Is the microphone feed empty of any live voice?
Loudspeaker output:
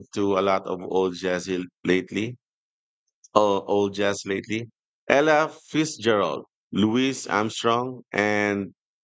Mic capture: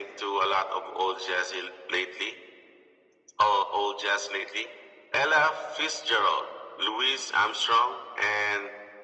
Yes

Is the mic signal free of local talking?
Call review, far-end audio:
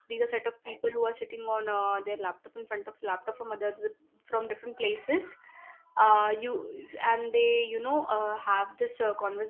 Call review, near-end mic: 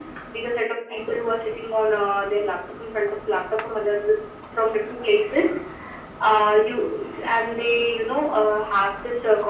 Yes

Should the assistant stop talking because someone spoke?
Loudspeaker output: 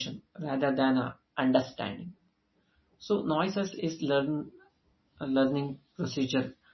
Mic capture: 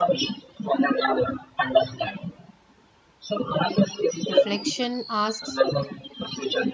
Yes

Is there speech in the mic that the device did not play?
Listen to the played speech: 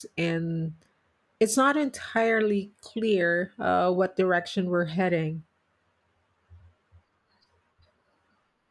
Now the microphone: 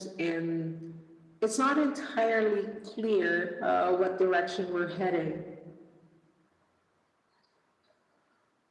No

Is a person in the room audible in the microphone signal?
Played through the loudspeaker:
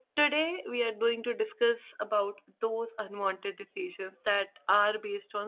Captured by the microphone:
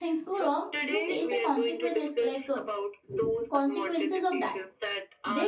Yes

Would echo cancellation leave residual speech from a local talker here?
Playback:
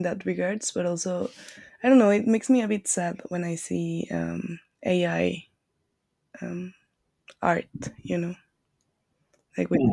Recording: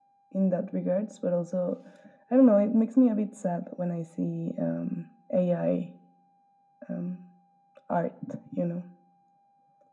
No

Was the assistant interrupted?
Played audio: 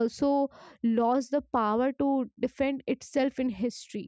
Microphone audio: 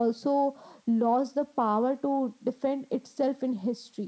No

